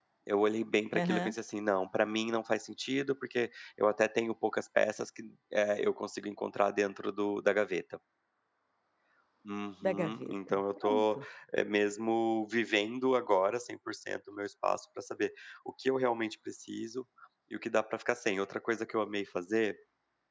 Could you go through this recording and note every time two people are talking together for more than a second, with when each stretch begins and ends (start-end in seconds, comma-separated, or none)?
9.8-11.2